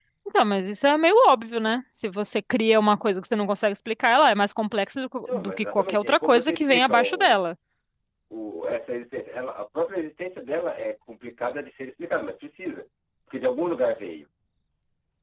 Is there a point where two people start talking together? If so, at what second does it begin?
5 s

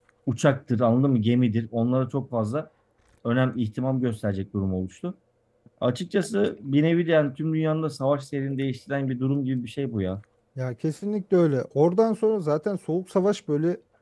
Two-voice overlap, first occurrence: none

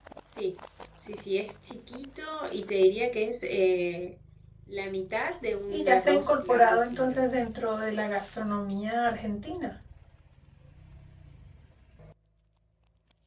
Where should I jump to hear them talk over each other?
6 s

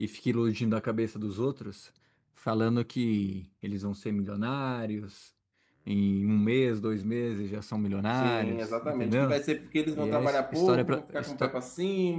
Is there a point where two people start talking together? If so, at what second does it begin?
8 s

